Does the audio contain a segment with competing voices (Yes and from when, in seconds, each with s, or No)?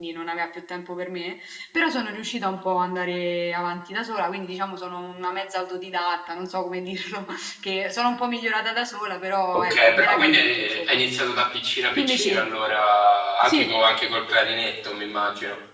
Yes, from 9.7 s